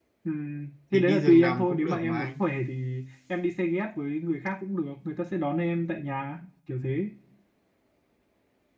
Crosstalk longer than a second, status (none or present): present